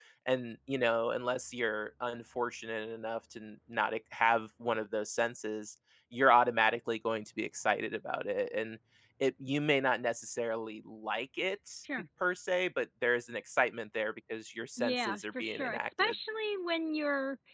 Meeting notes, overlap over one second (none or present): present